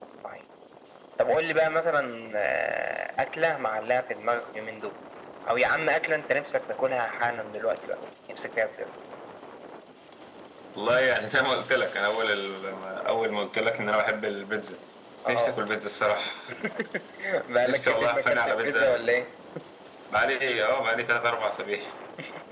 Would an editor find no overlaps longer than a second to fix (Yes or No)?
No